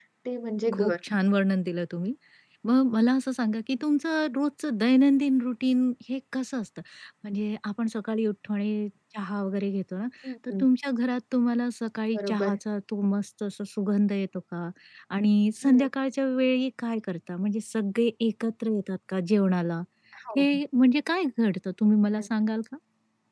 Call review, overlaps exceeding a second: none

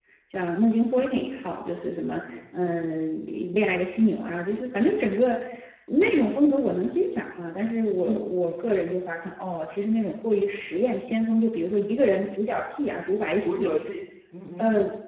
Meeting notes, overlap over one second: none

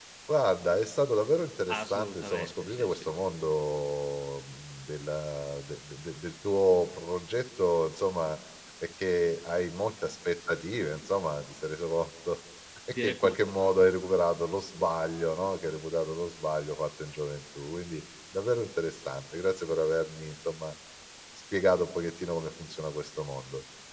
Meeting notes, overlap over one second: present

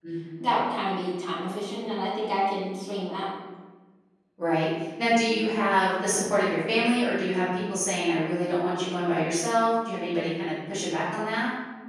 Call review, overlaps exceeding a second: none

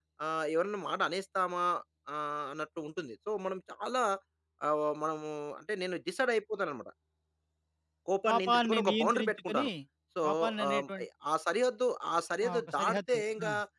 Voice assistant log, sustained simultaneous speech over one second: present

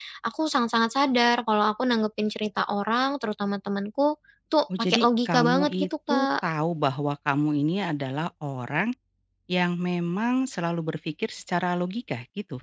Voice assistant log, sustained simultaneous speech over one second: present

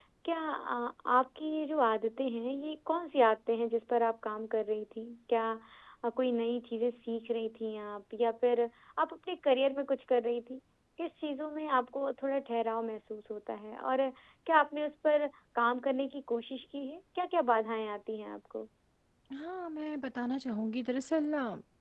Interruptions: none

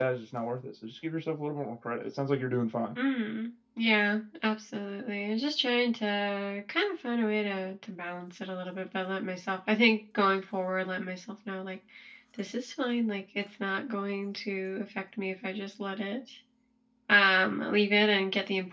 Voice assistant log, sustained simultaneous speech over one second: none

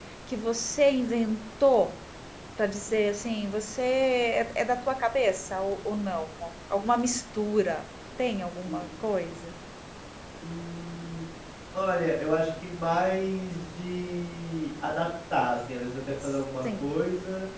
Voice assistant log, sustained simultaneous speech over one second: none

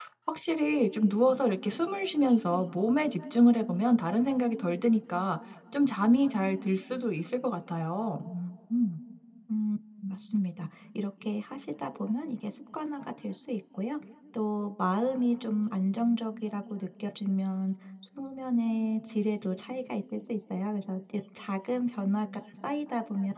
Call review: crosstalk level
none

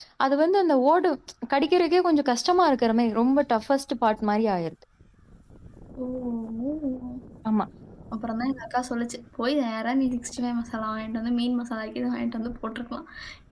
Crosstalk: none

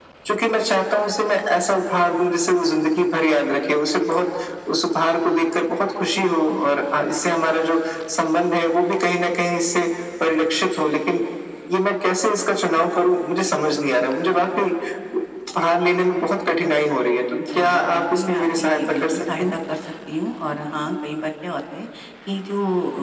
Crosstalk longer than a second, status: present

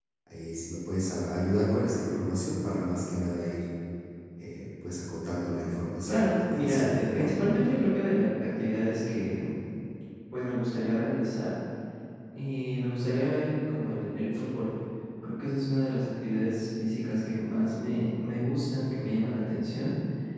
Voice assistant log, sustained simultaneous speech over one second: present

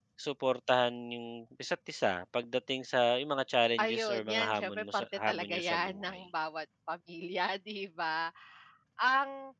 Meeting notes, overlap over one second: present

